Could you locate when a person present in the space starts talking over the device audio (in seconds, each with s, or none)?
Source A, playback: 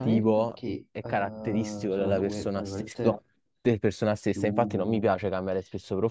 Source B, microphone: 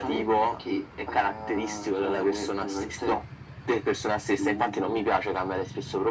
none